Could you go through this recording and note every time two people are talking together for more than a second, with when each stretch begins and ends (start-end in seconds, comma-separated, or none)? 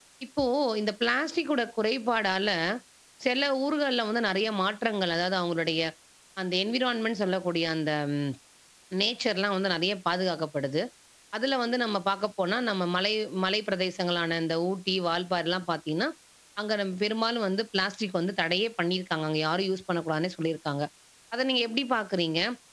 none